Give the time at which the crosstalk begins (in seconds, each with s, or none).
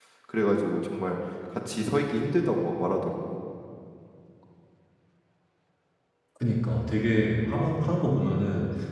none